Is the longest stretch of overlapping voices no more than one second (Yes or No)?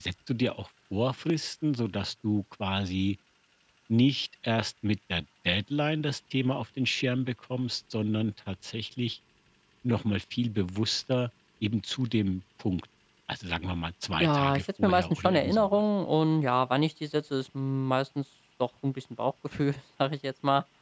No